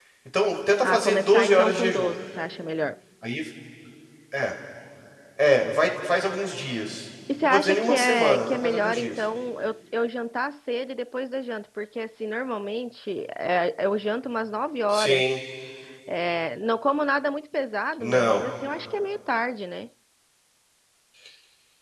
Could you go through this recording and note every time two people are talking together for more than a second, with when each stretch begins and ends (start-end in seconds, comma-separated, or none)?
0.8-2.1, 7.4-9.2